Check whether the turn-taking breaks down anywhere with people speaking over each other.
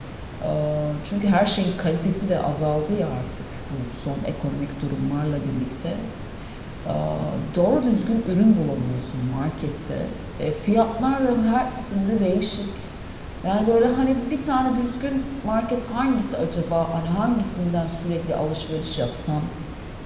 No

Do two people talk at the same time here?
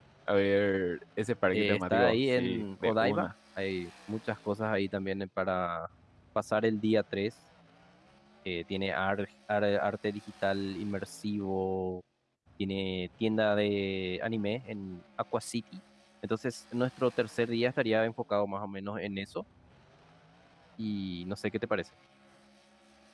Yes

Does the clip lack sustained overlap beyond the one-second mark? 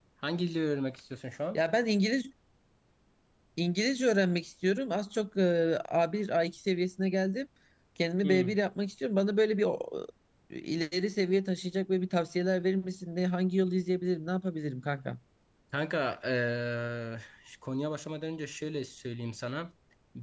Yes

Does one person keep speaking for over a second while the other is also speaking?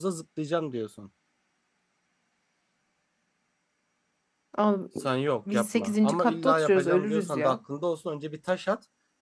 Yes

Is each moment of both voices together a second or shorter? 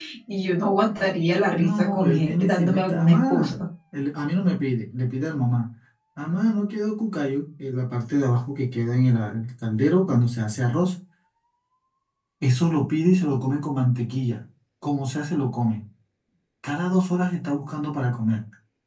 No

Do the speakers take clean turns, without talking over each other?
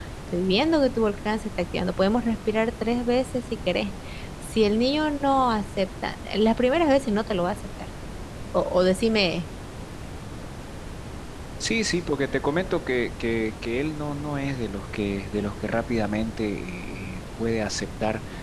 Yes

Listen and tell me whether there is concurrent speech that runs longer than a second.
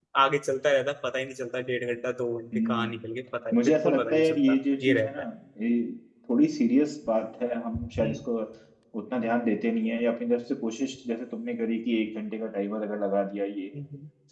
Yes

